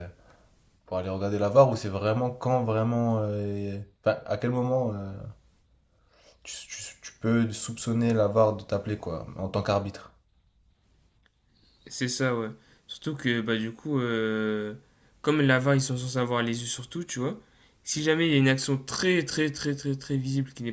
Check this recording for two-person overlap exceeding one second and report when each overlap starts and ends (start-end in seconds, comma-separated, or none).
none